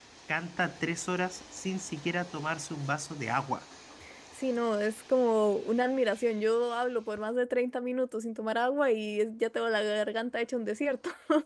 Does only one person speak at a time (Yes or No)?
Yes